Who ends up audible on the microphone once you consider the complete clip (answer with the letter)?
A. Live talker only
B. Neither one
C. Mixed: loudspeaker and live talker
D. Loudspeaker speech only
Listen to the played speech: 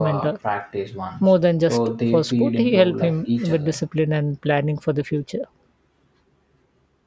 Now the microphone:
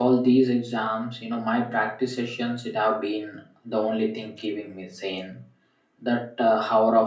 A